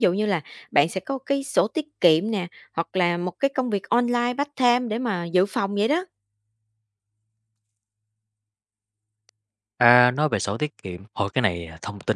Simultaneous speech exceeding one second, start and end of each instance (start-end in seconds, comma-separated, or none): none